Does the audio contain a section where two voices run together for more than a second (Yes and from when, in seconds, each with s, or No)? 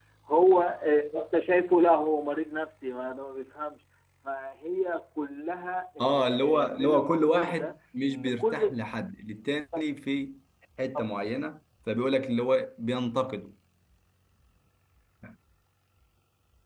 Yes, from 6.0 s